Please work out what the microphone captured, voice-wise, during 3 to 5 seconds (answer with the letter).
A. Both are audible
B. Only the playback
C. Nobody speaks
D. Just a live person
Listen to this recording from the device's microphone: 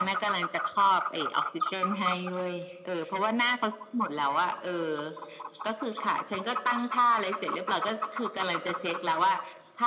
B